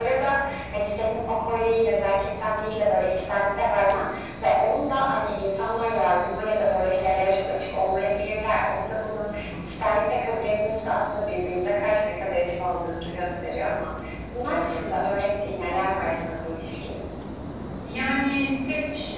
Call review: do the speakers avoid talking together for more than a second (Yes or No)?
Yes